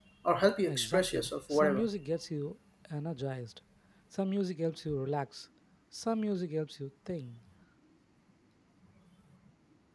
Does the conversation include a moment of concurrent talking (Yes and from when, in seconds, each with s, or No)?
Yes, from 0.7 s